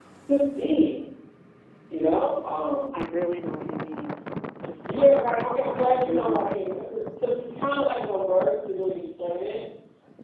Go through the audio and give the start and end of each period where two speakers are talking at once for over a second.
4.9-6.6

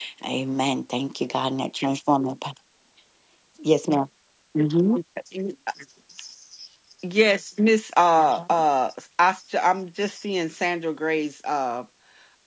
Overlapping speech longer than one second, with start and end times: none

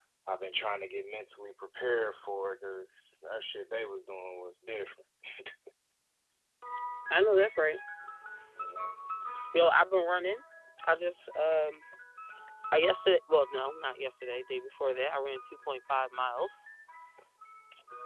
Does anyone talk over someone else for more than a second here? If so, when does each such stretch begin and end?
none

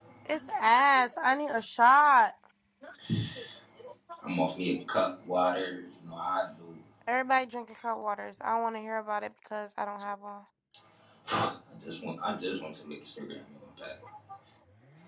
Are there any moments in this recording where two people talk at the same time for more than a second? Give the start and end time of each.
none

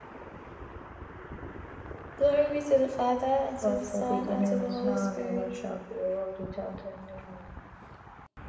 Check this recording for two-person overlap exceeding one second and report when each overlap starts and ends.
3.6-5.5

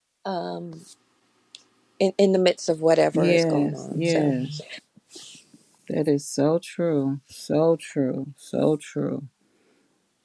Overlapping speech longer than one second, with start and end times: 3.1-4.4

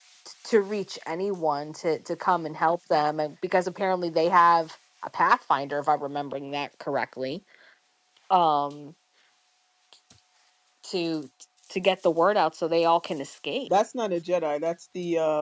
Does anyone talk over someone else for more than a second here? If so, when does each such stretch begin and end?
none

